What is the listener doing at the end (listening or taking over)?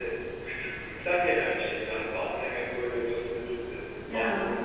listening